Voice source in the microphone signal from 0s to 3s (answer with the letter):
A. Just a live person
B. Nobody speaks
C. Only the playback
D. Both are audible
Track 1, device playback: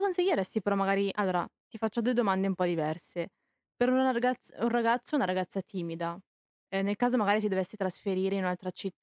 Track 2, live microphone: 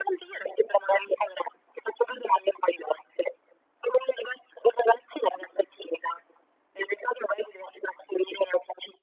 C